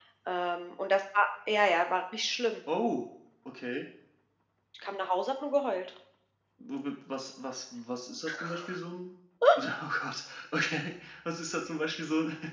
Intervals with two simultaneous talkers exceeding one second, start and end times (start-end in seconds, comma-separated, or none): none